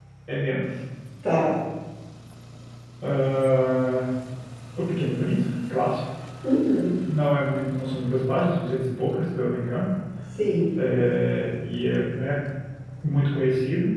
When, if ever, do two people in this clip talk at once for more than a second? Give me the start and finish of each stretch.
none

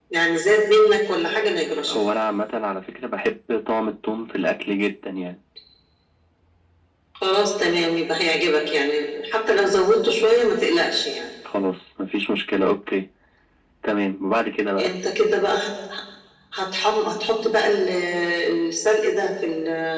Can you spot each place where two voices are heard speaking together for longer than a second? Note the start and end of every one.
none

